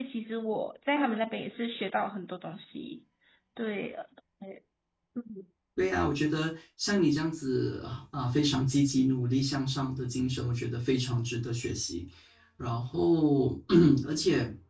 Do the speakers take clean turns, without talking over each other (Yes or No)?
Yes